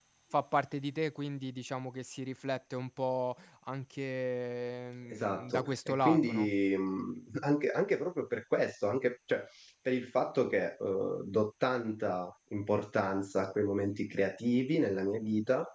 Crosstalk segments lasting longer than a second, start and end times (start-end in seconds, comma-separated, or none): 5.1-6.5